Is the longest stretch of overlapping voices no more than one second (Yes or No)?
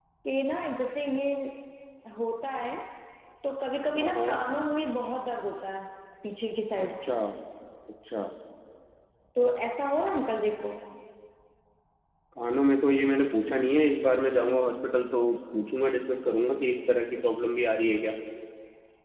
Yes